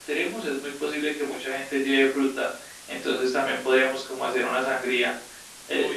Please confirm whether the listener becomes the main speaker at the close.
No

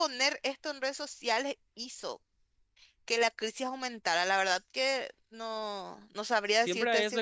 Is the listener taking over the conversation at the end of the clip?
Yes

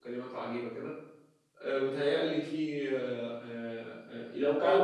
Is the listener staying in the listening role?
Yes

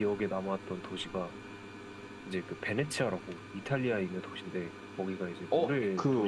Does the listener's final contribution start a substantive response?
Yes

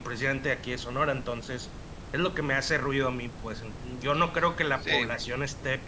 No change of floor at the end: Yes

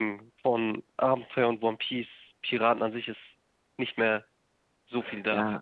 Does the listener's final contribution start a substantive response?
Yes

